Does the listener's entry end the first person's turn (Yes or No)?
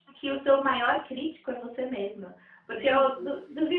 No